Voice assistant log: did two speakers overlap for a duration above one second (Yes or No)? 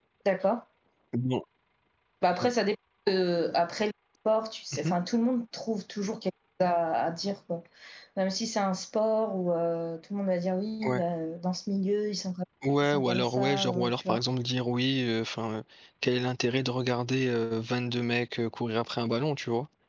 Yes